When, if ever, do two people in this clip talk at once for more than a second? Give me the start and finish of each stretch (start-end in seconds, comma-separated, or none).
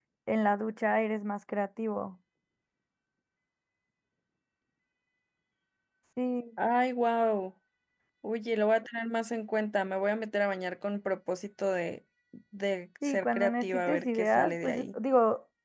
13.0-14.8